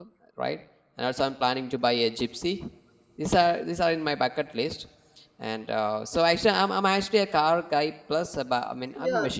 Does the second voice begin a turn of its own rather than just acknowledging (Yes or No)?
Yes